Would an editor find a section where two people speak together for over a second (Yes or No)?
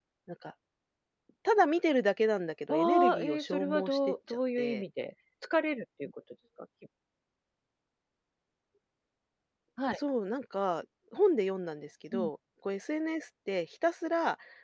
Yes